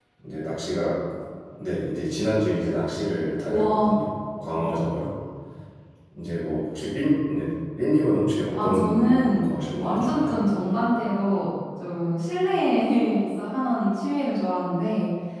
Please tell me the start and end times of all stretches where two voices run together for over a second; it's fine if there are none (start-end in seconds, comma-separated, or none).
8.6-10.3